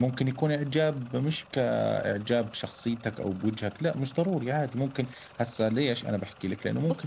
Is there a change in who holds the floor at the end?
Yes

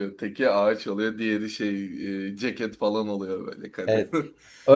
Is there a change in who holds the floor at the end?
Yes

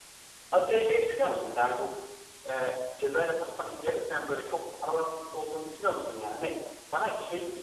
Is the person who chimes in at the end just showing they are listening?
Yes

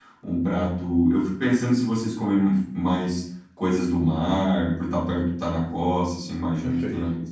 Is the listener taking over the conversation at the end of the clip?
No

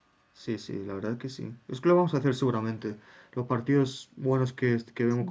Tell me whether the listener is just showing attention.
Yes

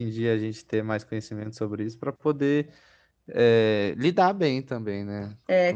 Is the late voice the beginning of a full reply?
Yes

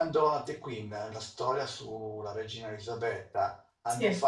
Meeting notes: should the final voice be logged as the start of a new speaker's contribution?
No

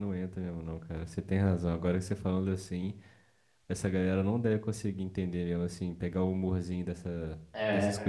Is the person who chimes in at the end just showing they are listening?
No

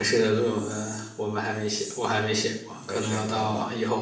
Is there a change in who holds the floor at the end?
Yes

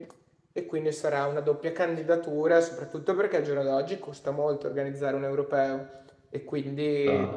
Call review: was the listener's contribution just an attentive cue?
Yes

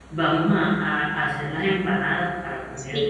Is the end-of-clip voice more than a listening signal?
Yes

